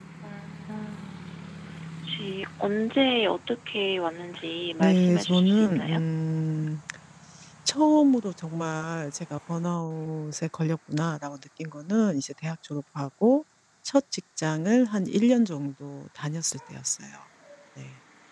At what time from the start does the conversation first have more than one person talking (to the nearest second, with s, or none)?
5 s